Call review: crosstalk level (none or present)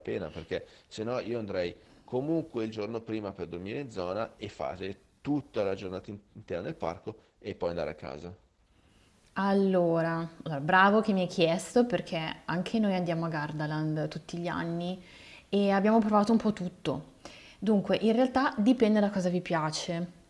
none